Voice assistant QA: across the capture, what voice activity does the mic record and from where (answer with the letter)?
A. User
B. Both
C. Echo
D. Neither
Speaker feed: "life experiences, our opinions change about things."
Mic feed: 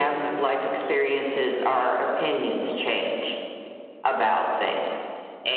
C